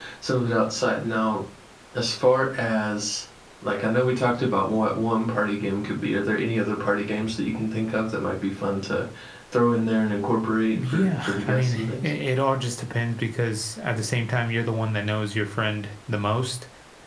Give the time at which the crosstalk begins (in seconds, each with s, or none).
10.7 s